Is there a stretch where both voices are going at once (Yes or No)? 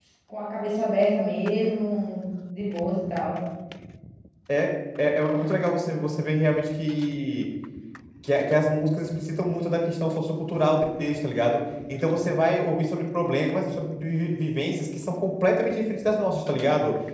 No